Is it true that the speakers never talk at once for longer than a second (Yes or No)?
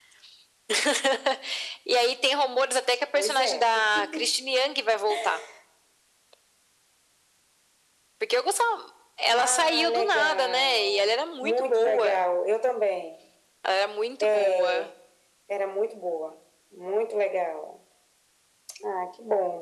No